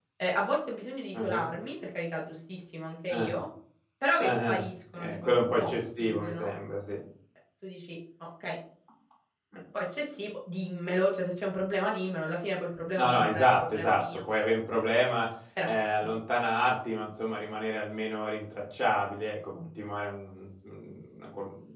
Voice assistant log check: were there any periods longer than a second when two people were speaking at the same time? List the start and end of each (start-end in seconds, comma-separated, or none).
4.2-6.5, 13.0-14.2